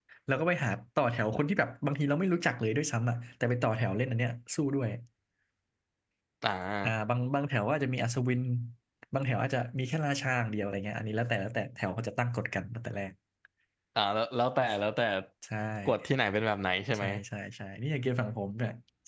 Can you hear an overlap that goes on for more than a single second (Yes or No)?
No